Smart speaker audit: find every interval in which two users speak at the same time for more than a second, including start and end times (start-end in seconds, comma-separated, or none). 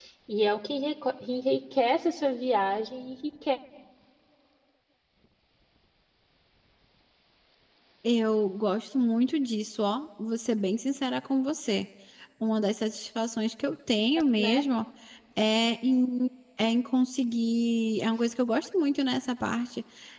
none